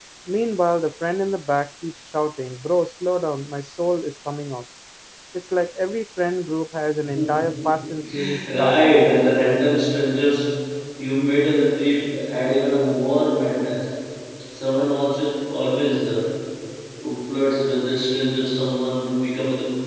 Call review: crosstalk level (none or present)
present